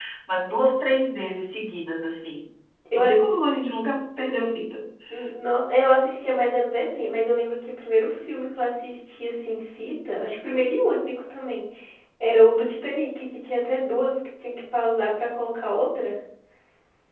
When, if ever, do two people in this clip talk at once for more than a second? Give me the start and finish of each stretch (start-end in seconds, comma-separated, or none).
none